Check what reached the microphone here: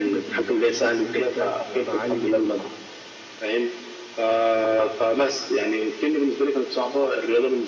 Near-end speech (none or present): none